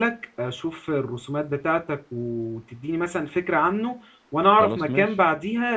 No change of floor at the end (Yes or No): Yes